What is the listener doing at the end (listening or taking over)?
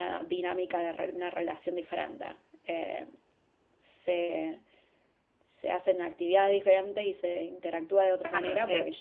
taking over